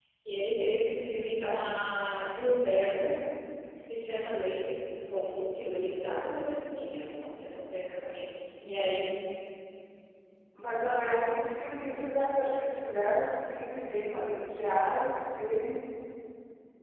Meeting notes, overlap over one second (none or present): none